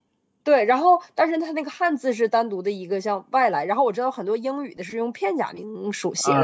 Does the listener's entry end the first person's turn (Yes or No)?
Yes